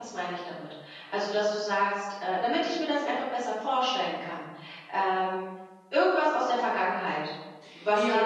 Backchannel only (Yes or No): No